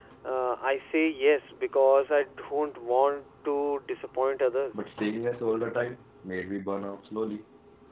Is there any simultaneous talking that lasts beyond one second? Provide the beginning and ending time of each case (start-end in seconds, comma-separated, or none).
none